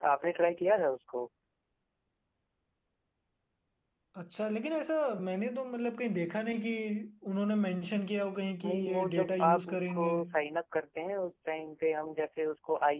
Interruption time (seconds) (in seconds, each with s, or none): 8.6 s